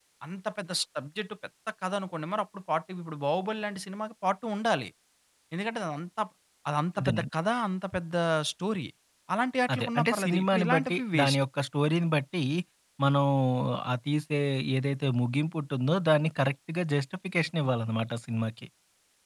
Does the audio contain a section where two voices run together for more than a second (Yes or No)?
Yes